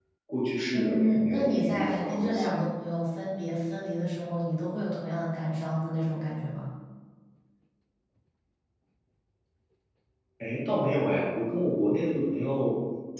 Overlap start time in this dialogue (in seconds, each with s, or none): 0.7 s